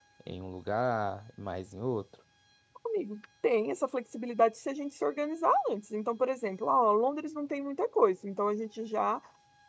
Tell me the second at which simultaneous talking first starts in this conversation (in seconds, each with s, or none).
none